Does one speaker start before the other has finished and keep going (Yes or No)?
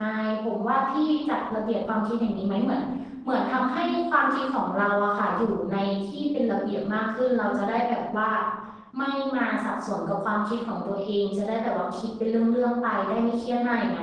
No